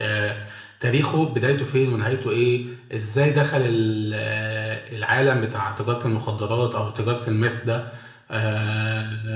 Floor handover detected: No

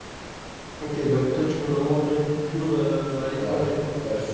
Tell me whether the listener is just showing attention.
No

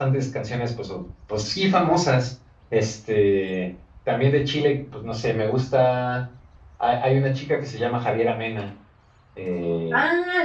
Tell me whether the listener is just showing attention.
No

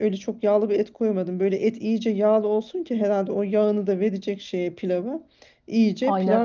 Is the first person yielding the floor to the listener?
No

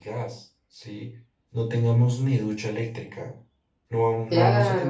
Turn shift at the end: Yes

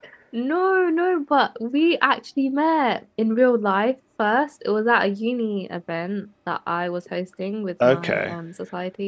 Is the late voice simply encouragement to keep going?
Yes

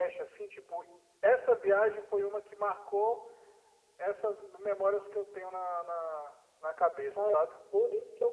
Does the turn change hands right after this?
Yes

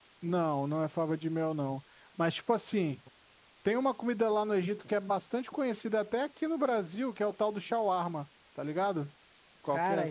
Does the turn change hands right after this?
Yes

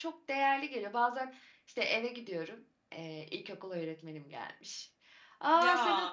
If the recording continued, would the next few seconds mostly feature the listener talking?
No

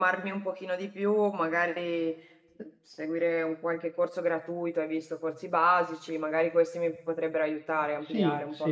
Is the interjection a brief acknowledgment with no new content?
No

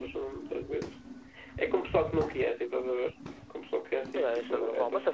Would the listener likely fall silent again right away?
No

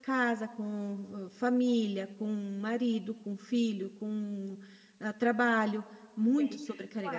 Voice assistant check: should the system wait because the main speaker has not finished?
No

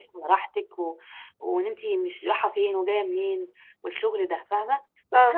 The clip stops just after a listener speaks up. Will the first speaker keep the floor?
Yes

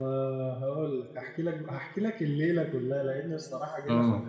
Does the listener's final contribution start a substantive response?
No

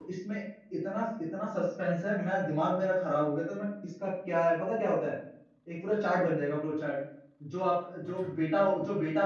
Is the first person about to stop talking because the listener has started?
No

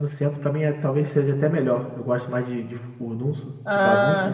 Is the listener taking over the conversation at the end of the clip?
Yes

